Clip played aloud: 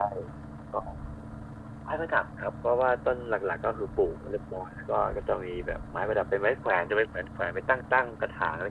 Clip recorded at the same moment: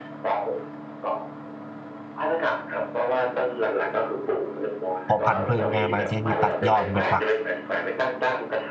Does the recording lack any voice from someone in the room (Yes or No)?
No